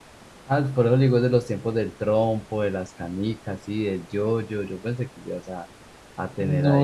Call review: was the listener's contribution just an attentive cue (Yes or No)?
No